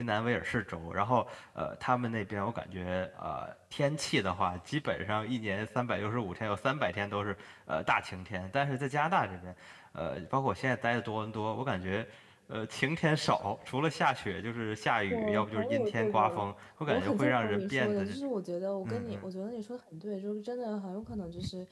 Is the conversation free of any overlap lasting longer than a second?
No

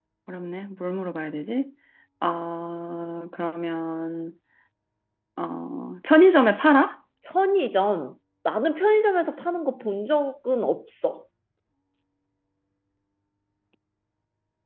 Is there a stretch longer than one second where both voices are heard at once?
No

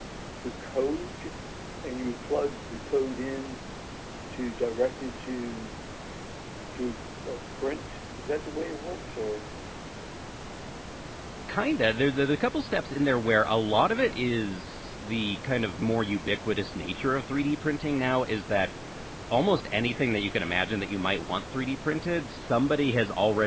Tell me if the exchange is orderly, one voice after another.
Yes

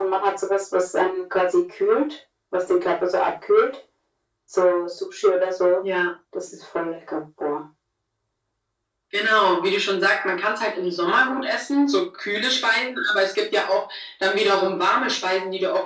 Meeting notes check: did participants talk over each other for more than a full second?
No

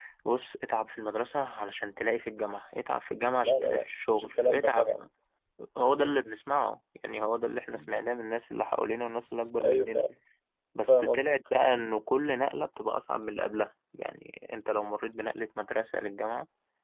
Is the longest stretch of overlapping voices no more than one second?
No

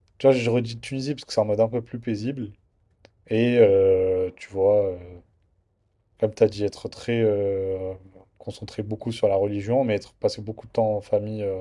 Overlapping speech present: No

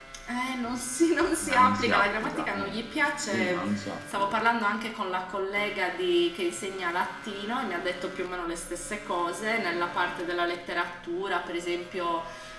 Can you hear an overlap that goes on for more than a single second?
Yes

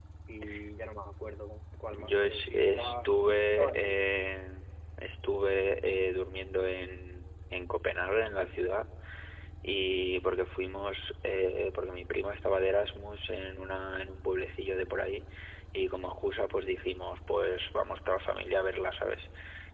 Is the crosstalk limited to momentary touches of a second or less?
No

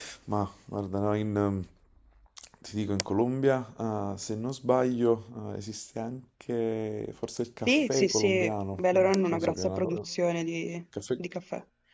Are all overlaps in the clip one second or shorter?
No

